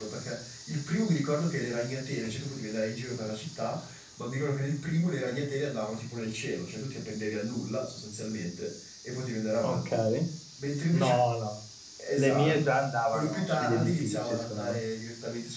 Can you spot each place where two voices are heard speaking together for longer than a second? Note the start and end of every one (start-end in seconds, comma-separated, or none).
13.1-14.8